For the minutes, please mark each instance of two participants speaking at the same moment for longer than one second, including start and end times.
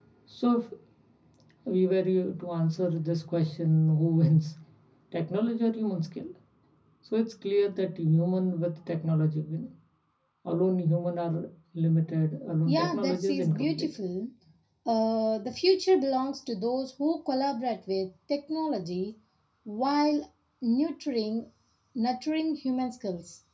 12.7-13.9

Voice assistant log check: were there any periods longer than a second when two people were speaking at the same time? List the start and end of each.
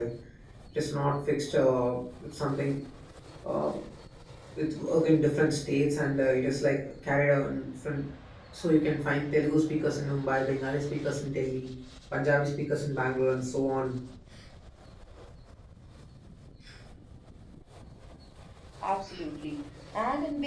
none

